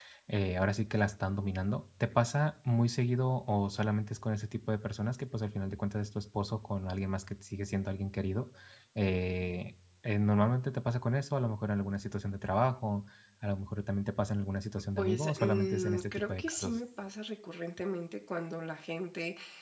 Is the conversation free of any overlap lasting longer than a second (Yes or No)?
No